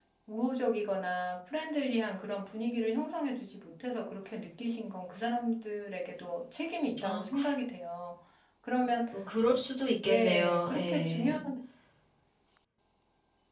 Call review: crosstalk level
present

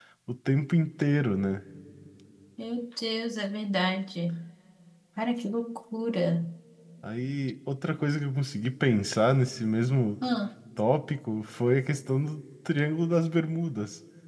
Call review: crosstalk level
none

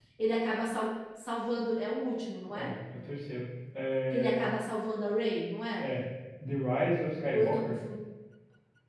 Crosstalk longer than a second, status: none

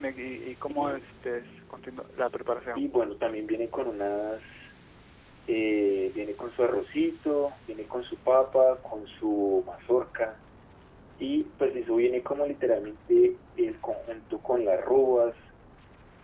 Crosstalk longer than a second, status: none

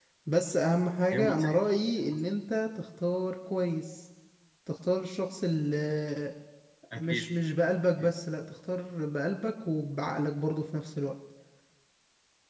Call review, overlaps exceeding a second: none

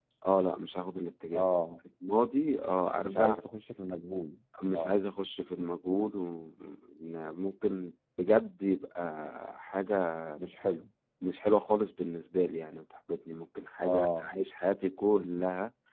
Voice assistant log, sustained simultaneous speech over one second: none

